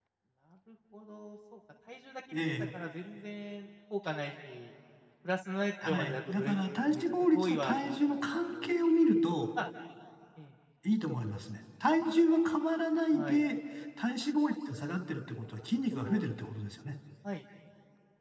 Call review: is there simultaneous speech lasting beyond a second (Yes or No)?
Yes